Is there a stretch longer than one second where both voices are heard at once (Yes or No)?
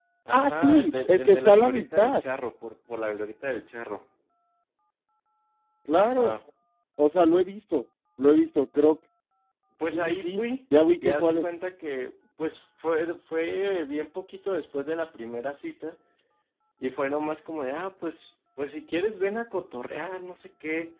Yes